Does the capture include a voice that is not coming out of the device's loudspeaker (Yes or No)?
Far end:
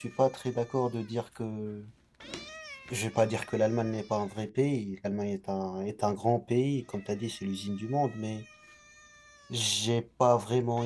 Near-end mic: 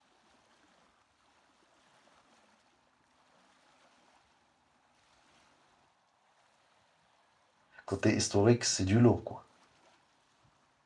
Yes